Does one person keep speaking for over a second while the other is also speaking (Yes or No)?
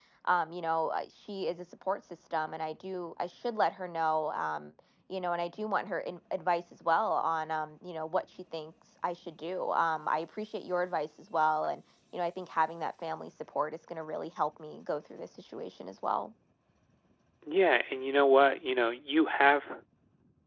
No